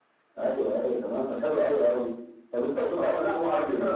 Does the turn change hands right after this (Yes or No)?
Yes